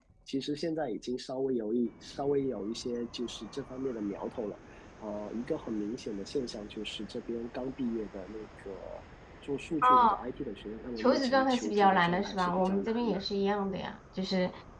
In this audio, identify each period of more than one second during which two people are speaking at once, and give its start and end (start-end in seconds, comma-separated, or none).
11.0-13.2